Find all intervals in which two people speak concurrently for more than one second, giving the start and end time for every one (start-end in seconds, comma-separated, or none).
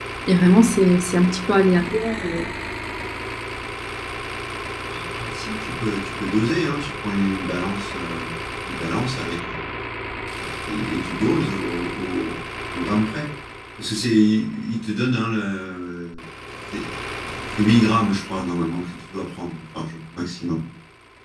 none